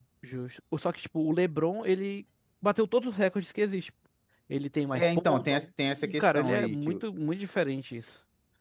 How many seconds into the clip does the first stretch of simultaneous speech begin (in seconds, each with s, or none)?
4.9 s